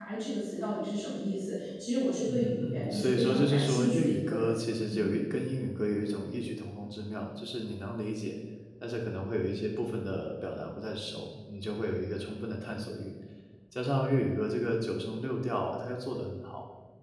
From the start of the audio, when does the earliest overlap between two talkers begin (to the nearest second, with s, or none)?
2 s